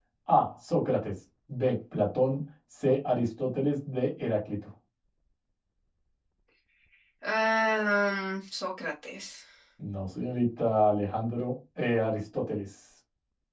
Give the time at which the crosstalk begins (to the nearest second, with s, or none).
none